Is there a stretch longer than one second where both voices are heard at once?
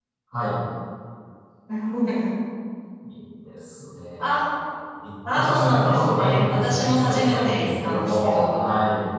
Yes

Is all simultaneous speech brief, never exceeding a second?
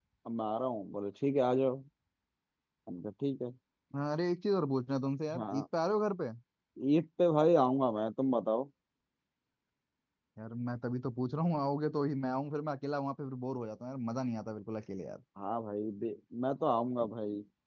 Yes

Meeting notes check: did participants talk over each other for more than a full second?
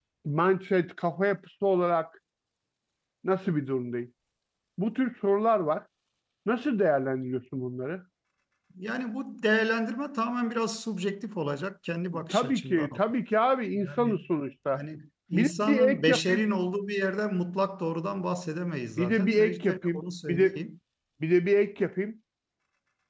Yes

